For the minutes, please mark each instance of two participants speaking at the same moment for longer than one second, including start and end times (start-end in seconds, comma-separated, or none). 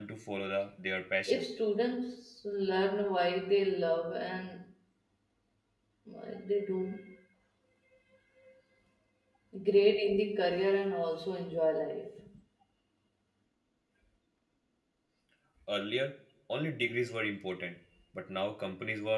none